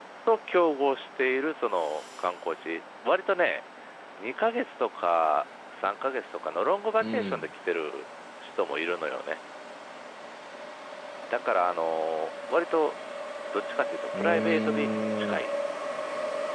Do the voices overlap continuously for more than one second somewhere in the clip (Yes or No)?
Yes